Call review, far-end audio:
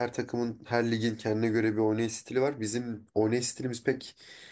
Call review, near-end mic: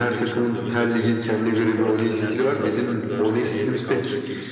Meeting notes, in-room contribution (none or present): present